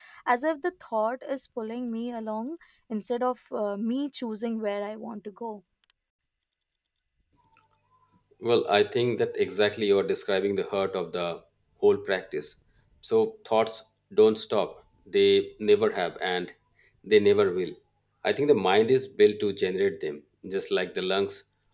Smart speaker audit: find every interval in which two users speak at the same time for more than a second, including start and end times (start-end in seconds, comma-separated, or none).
none